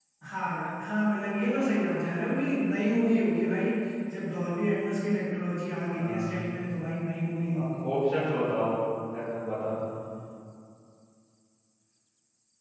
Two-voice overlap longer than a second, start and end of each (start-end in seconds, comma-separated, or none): none